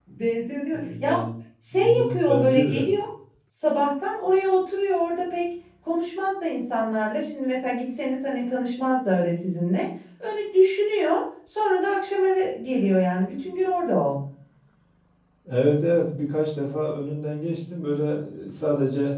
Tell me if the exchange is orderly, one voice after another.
No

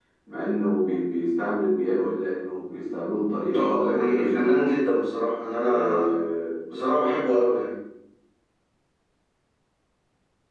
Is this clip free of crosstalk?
No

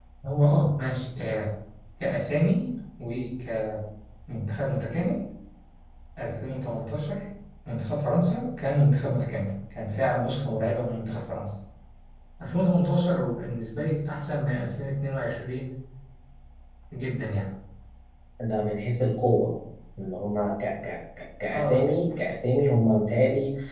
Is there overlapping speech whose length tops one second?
No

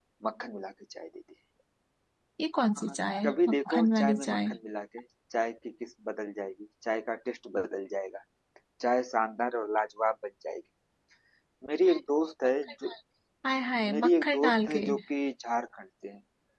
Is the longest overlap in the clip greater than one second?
Yes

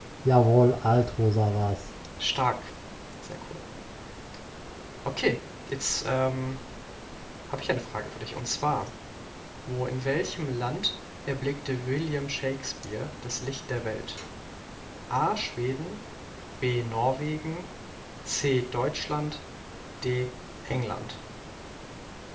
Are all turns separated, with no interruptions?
Yes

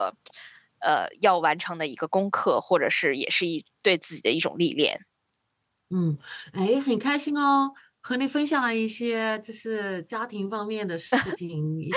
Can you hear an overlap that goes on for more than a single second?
No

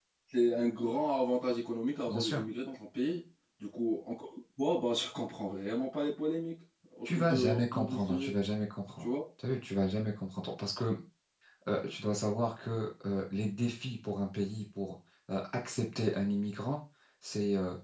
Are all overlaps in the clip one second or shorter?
No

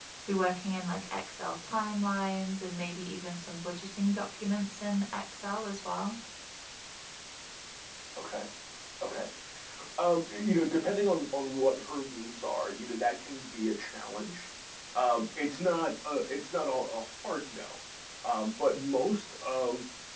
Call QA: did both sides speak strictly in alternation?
Yes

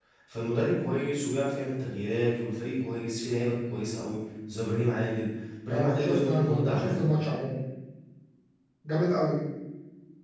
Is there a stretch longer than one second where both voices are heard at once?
Yes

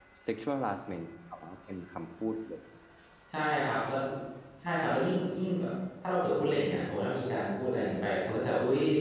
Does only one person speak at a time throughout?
Yes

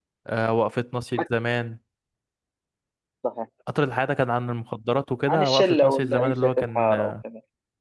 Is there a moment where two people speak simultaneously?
Yes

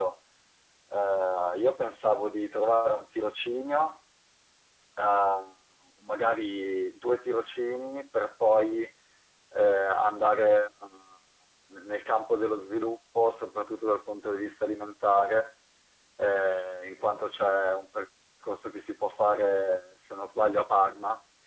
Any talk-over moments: No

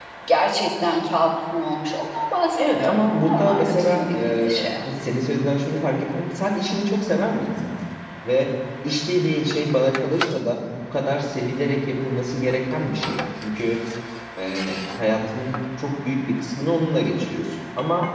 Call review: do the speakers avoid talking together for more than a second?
No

